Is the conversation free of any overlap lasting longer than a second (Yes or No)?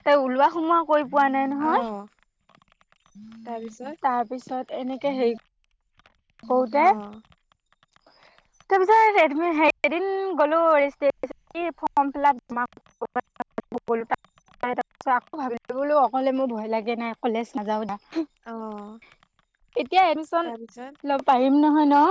Yes